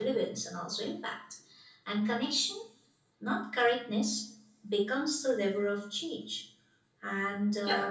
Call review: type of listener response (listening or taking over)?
taking over